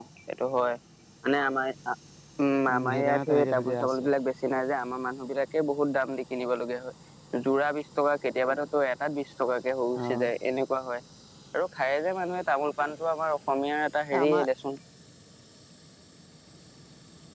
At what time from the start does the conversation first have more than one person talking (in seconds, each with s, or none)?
2.7 s